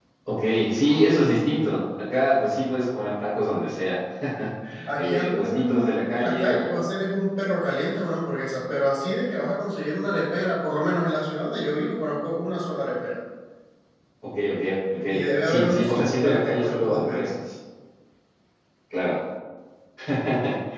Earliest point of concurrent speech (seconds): 5.0 s

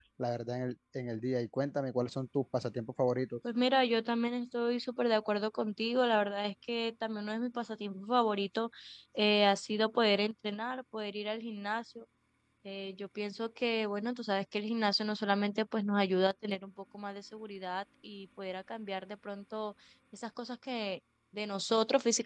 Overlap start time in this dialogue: none

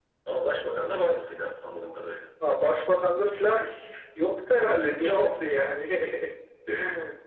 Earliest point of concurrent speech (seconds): none

